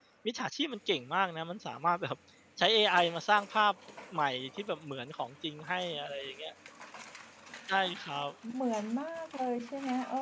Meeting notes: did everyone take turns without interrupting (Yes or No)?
Yes